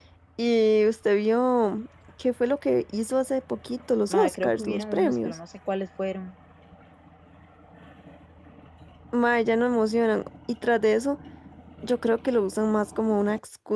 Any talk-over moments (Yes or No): Yes